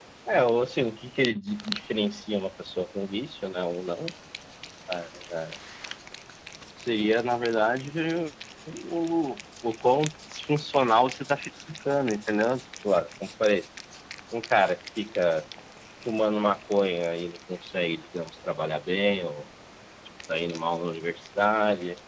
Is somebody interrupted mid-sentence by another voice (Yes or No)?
No